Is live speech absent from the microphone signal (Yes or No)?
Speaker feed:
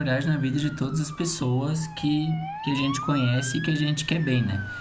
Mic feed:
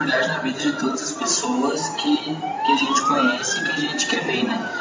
Yes